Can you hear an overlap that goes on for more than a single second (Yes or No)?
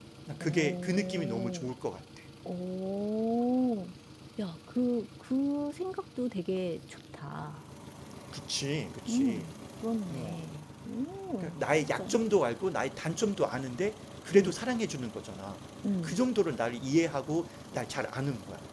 Yes